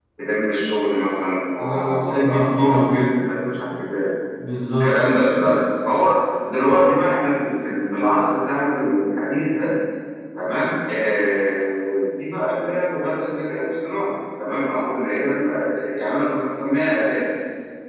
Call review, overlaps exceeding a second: present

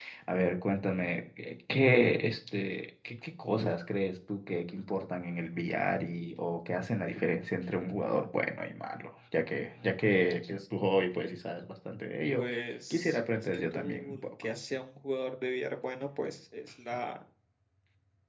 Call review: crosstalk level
present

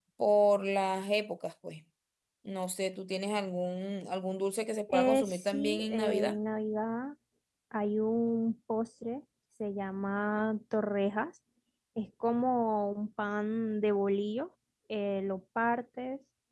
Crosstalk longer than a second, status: present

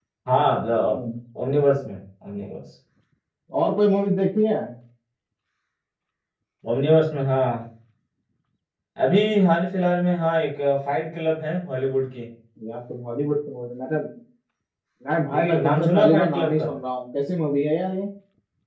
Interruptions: present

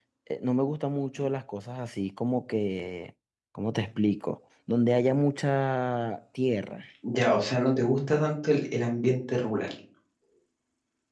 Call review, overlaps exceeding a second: none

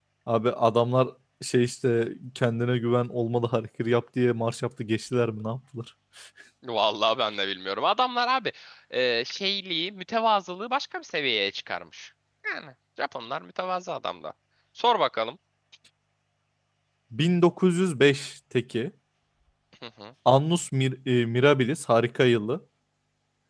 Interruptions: none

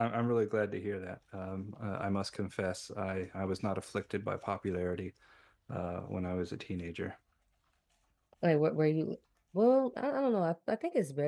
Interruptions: none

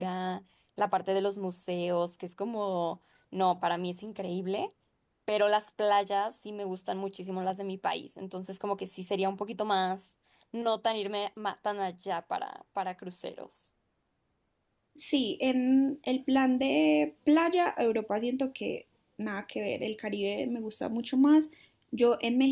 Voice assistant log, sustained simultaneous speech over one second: none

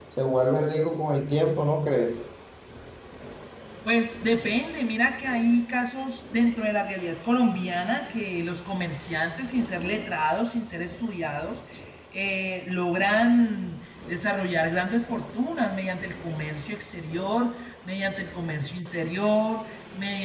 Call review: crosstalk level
none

